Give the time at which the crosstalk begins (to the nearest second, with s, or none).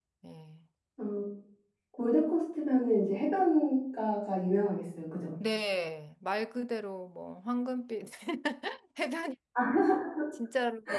none